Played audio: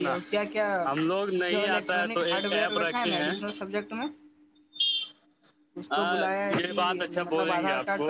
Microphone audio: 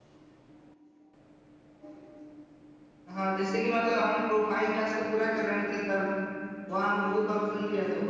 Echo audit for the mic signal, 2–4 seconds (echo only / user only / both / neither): user only